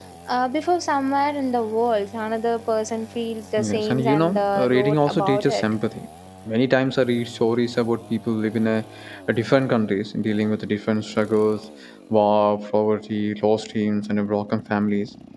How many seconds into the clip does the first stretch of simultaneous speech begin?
3.6 s

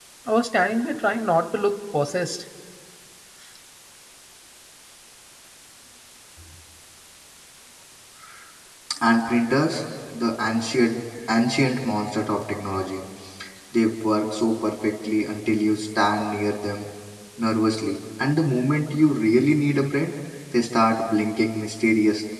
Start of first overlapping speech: none

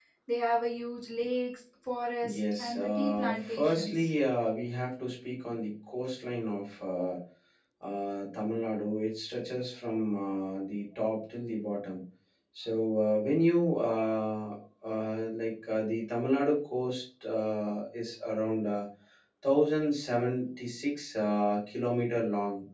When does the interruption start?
2.2 s

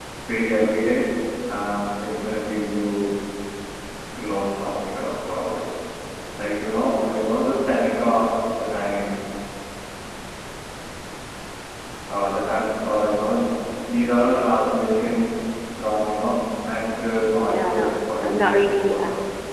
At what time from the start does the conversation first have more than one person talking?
17.5 s

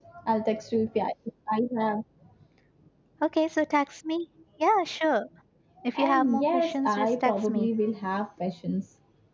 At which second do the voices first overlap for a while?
6.0 s

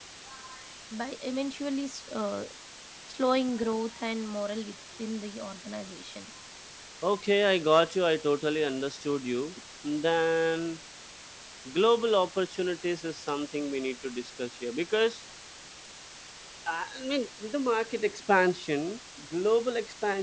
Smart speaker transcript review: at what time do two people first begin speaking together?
none

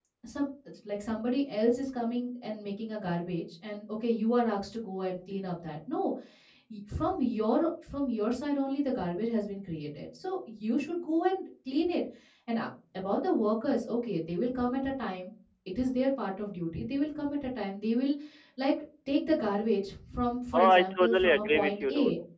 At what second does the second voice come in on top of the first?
20.5 s

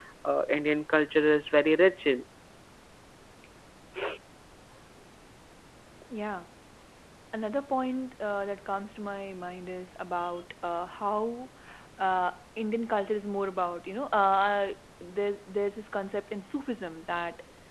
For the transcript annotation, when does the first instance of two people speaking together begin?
none

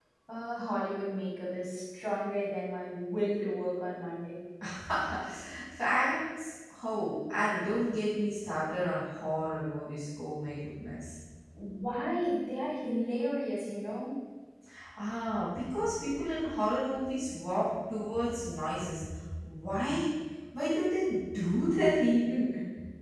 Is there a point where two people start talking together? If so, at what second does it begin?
none

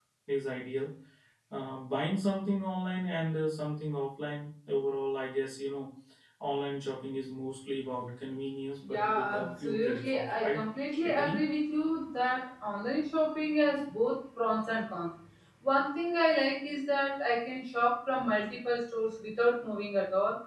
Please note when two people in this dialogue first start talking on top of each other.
8.9 s

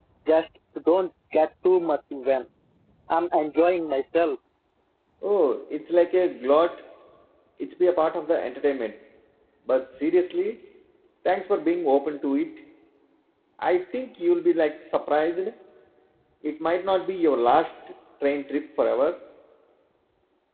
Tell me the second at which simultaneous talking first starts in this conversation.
none

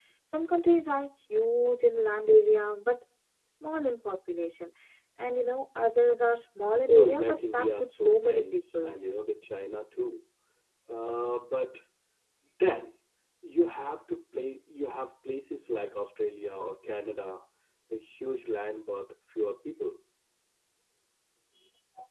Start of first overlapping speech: 6.9 s

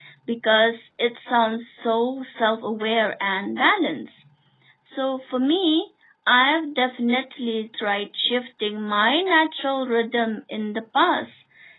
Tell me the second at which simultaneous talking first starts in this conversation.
none

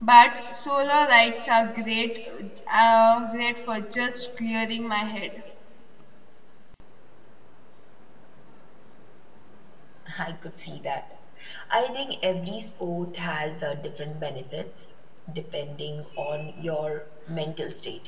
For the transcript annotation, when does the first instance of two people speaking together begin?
none

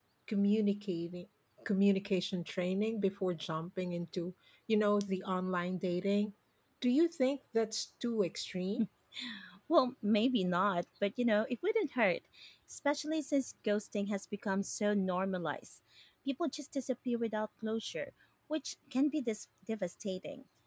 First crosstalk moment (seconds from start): none

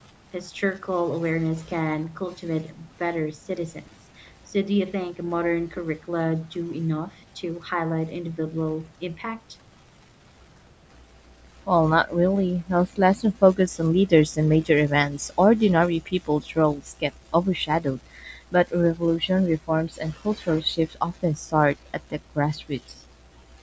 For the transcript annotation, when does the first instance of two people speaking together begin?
none

